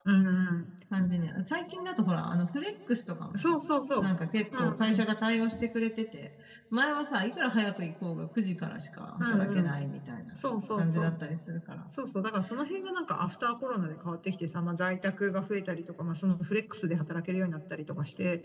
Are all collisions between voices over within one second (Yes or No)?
Yes